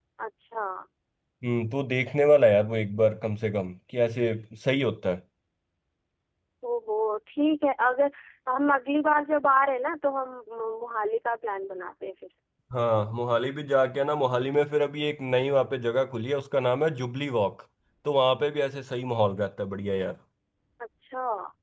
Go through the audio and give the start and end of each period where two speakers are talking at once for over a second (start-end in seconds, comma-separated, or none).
none